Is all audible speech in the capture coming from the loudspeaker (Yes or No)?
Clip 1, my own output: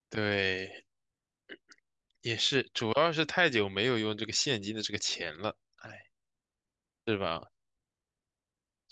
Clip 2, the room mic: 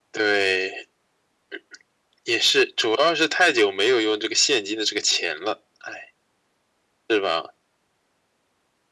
Yes